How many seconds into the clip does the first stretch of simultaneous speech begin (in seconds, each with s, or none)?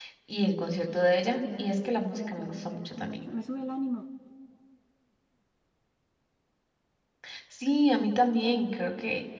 1.4 s